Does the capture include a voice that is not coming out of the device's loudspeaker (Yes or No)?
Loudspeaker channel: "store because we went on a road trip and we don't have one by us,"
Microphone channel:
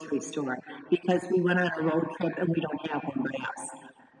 No